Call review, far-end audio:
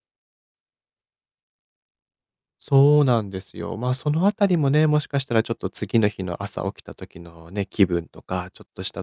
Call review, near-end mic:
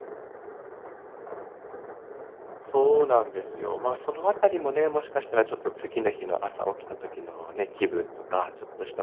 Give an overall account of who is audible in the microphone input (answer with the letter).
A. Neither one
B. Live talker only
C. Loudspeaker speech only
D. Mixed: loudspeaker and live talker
C